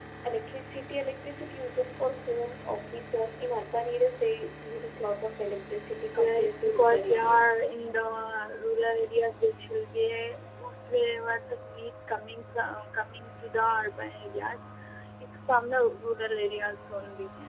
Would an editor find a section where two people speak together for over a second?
Yes, from 6.1 s

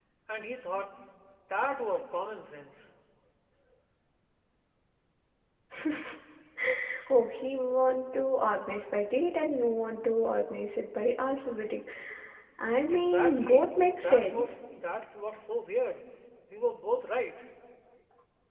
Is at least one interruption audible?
Yes, from 12.9 s

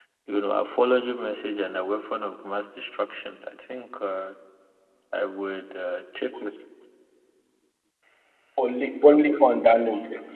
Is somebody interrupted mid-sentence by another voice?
No

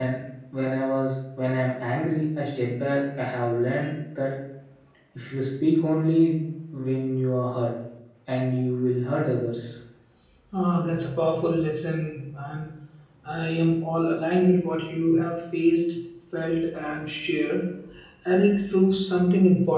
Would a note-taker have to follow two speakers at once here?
No

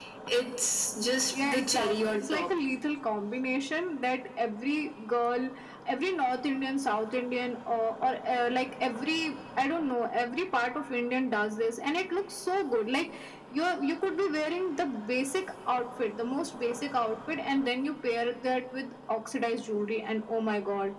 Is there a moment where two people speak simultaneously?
Yes, from 1.3 s

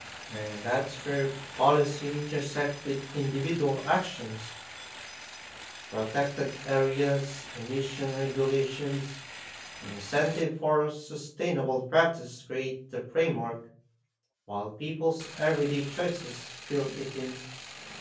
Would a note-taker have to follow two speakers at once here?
No

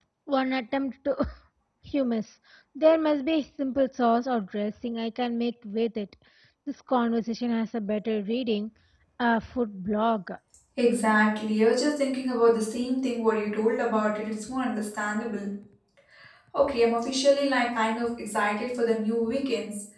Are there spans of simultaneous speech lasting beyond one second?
No

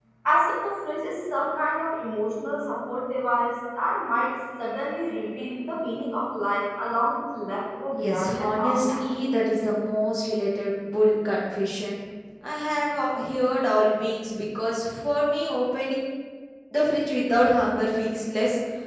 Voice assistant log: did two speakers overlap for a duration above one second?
Yes, from 8.0 s

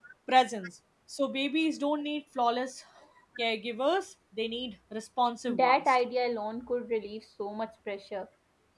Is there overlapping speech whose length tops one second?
No

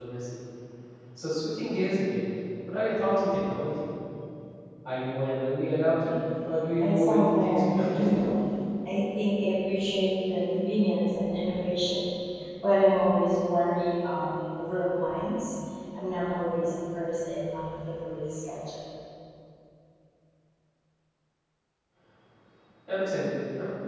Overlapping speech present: Yes, from 6.8 s

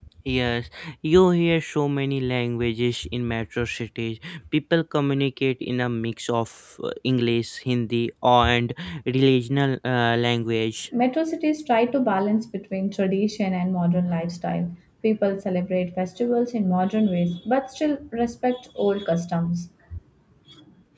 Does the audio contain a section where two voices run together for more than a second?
No

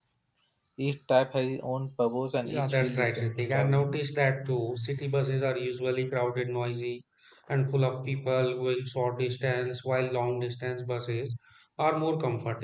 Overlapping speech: Yes, from 2.4 s

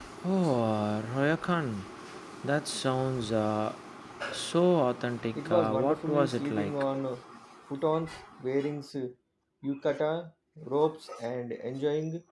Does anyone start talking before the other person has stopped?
Yes, from 5.3 s

